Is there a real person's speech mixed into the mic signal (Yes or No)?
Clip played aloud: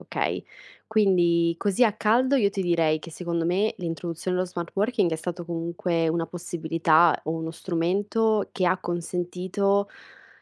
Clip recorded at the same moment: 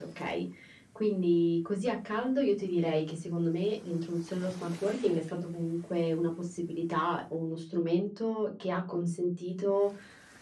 No